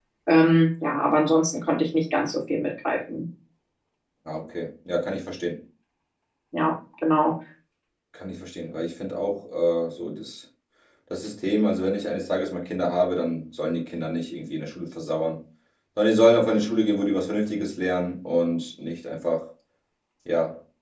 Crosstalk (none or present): none